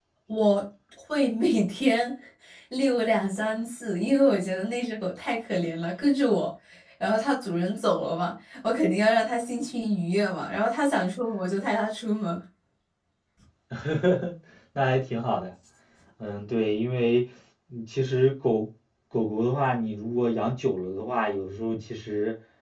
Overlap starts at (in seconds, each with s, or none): none